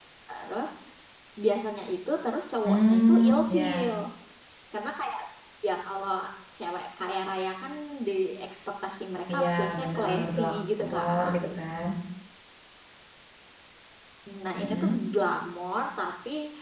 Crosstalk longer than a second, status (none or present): present